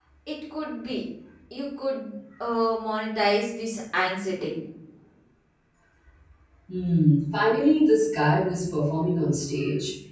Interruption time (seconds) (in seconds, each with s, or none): none